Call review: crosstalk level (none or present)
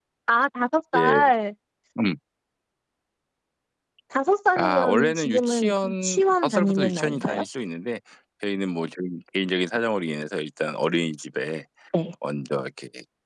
present